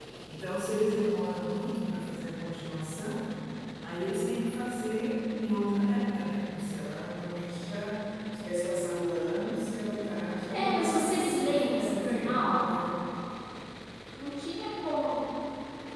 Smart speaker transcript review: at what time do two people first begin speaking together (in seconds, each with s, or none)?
10.5 s